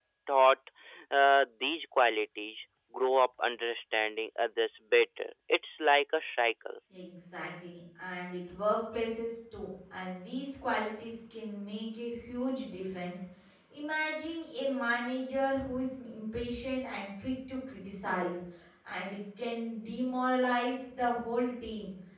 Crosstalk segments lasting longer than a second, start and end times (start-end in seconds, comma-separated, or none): none